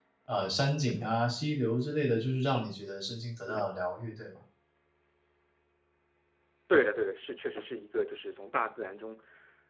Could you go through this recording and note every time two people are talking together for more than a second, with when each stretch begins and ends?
none

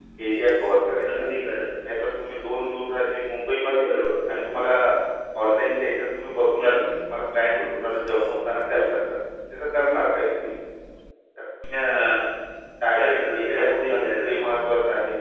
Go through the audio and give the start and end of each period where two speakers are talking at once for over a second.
13.0-14.3

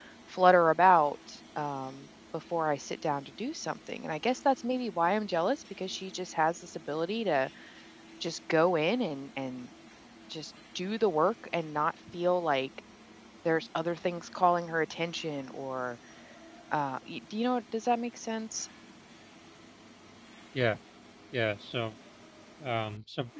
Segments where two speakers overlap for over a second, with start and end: none

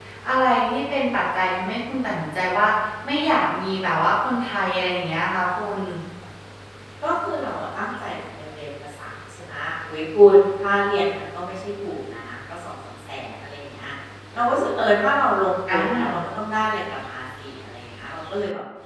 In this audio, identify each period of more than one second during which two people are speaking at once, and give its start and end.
none

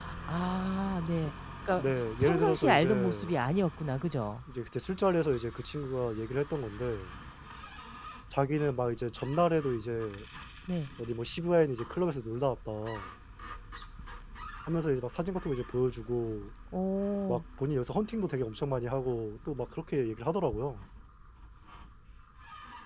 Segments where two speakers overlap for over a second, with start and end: 1.8-3.3

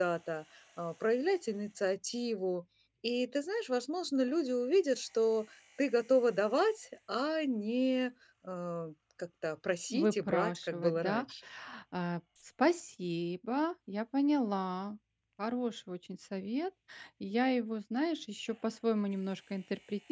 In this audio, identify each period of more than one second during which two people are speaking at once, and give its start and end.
9.9-11.2

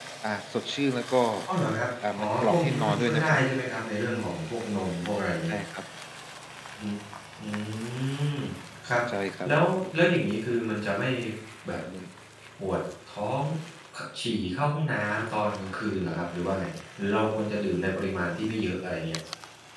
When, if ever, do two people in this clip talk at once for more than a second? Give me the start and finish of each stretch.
2.1-3.4

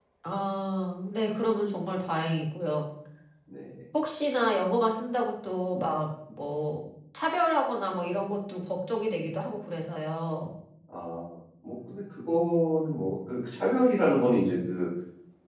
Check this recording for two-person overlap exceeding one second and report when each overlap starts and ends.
none

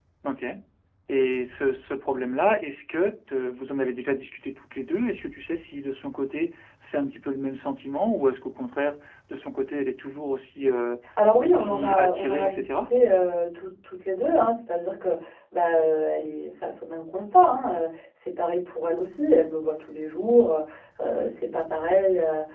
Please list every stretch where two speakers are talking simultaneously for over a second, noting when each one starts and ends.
11.4-12.9

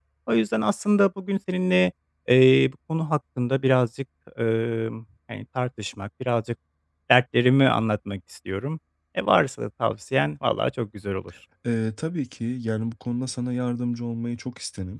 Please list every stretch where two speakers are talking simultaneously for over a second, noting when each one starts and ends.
none

